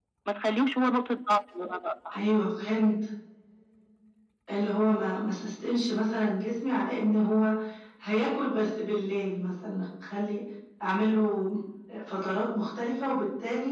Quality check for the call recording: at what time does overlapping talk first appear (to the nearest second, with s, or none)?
none